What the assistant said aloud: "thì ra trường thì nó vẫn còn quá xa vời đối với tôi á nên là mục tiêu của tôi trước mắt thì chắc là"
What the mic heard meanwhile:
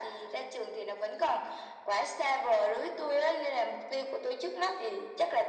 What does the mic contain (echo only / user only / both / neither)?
echo only